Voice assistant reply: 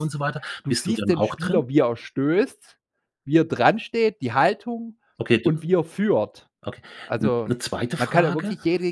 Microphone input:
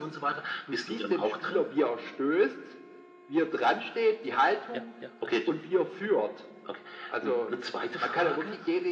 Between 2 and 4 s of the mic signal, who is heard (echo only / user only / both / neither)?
echo only